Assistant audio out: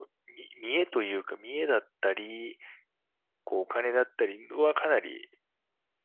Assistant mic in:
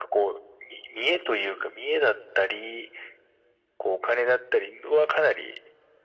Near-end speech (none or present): none